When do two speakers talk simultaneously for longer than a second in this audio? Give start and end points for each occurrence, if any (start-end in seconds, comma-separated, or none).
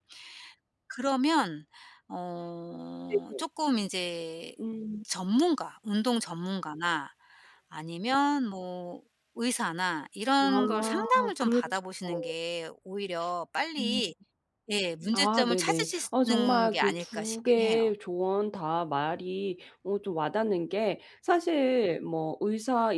10.4-11.7, 15.1-17.9